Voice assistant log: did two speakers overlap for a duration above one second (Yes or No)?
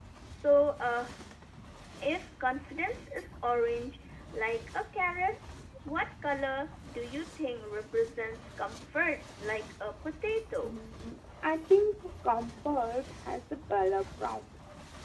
No